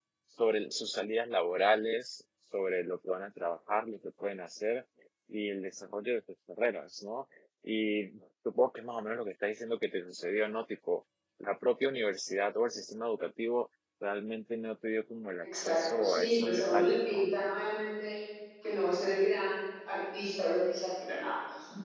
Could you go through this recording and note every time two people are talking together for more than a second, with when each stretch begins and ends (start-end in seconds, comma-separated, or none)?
15.4-17.3